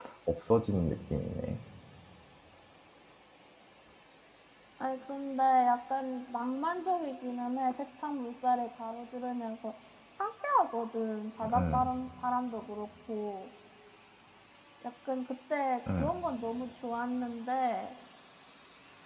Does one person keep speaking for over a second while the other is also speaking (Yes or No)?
No